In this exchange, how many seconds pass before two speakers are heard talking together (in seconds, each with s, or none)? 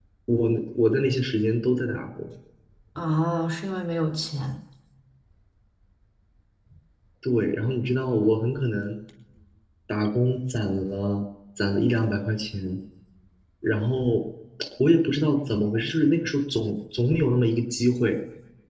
none